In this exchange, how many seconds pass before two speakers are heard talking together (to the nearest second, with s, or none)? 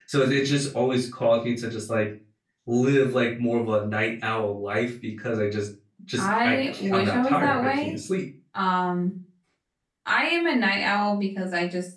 6 s